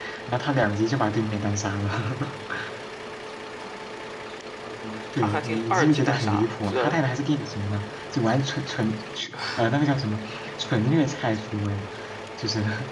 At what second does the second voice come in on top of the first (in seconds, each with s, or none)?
5.1 s